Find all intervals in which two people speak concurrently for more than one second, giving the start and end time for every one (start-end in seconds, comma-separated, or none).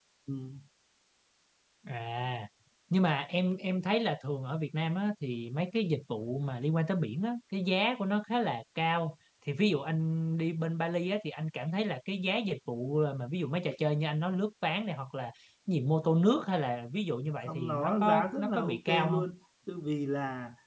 17.5-19.3